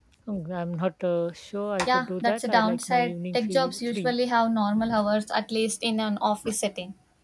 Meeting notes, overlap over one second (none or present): present